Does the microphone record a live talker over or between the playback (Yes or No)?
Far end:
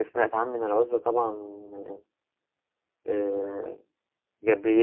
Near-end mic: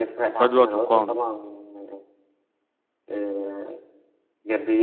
Yes